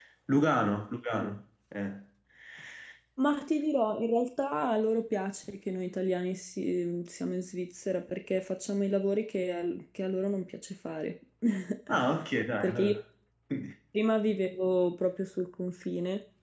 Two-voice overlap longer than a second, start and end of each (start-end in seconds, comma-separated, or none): none